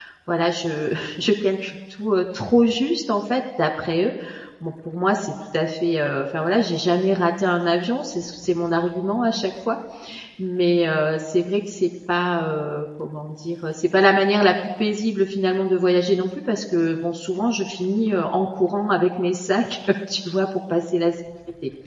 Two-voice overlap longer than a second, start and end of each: none

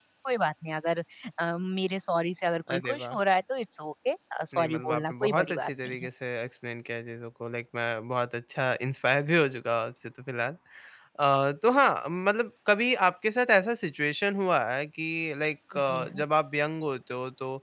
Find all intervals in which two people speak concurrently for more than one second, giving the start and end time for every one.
4.5-6.1

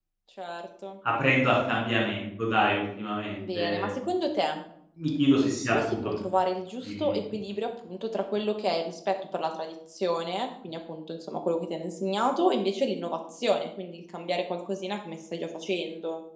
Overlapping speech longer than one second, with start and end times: none

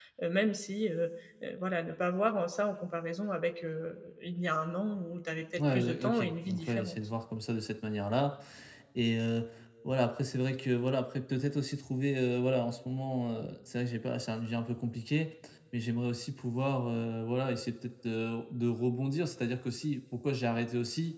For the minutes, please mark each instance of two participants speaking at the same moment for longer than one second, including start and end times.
5.6-7.0

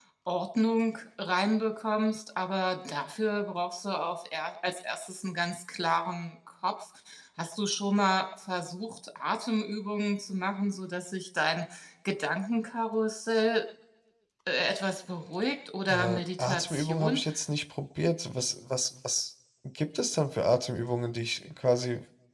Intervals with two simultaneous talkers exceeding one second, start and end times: 15.9-17.2

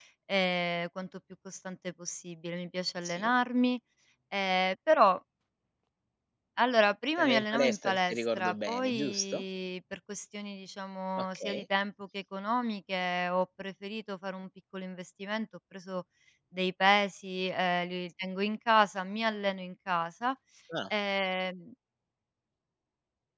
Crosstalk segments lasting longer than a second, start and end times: 7.2-9.4

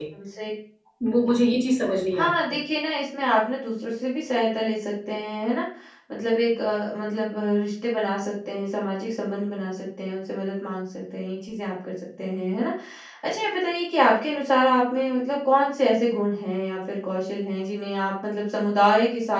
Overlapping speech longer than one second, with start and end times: none

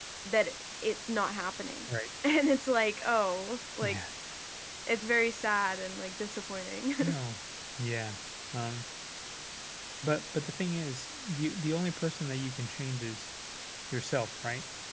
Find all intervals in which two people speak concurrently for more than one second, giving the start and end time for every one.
none

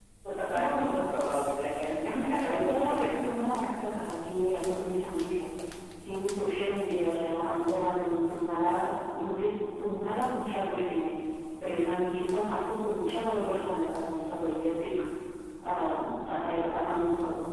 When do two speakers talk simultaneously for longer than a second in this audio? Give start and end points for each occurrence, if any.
2.1-3.4

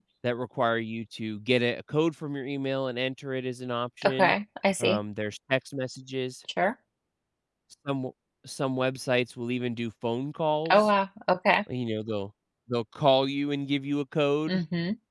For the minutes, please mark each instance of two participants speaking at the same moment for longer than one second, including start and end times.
none

